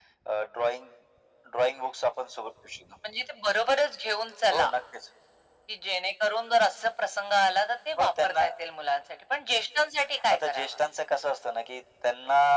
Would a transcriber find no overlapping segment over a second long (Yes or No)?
Yes